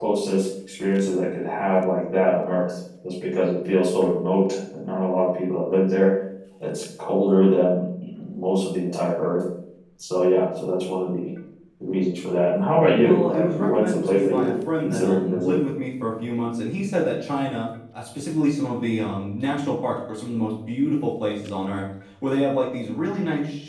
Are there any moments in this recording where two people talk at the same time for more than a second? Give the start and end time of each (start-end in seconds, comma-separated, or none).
12.9-15.7